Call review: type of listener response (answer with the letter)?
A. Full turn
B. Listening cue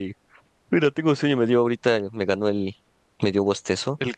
B